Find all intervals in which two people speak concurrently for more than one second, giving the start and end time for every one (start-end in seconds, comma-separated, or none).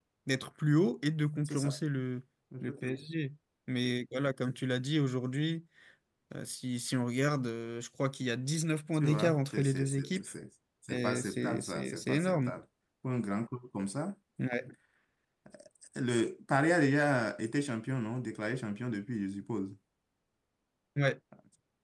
8.9-10.2, 10.9-12.5